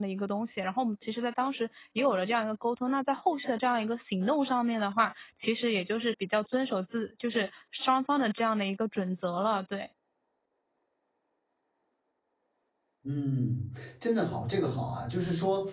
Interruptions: none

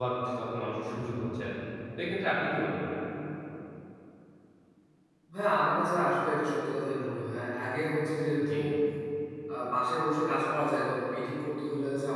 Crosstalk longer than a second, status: none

